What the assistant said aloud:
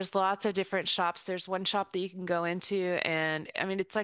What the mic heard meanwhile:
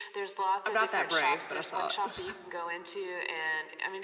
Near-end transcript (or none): I'm not that brave, but I saw it.